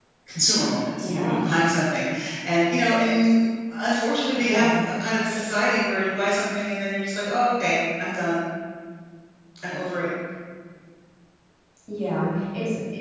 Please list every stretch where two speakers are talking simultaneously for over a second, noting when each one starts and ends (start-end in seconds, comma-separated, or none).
none